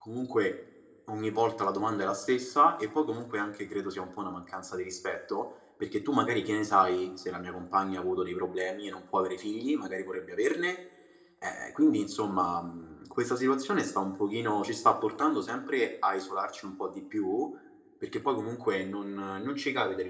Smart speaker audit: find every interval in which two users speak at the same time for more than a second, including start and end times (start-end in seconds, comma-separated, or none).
none